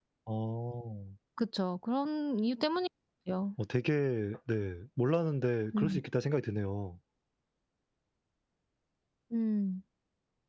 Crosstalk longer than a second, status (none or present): none